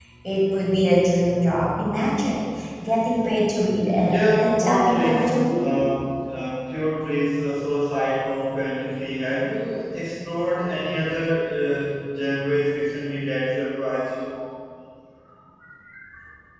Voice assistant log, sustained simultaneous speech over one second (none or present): present